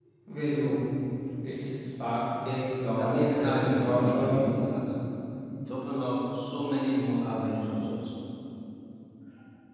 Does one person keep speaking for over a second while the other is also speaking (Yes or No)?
Yes